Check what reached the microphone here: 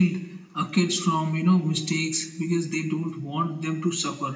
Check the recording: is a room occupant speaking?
No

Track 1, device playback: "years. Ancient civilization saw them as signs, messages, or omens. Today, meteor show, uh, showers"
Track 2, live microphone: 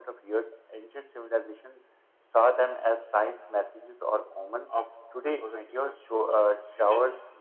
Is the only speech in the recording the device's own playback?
No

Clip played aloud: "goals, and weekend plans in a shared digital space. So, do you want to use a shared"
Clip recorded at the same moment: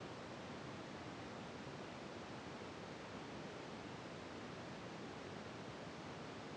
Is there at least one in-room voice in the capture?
No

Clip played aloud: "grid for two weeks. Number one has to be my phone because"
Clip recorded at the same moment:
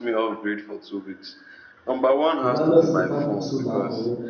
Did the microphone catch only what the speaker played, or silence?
No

